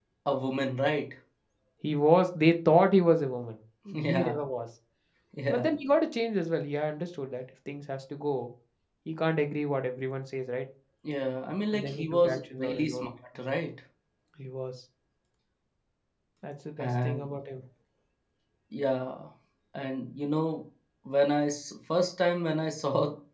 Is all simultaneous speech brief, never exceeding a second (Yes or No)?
No